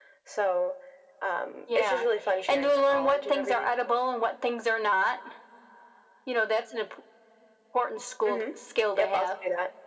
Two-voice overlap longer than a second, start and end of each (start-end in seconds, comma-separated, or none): 2.5-3.7